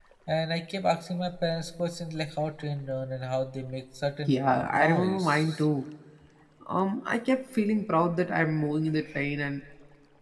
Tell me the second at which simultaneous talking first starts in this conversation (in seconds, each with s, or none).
4.3 s